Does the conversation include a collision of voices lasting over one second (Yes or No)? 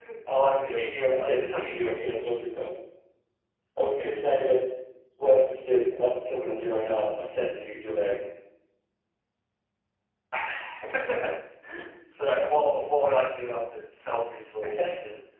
Yes